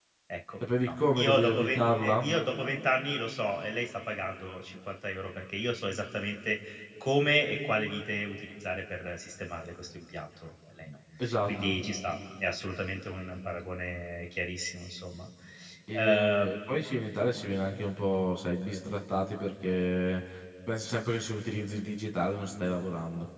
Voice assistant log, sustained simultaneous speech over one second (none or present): present